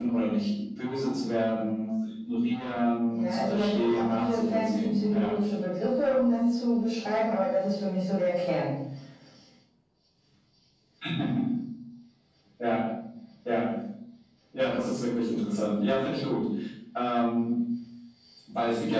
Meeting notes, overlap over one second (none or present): present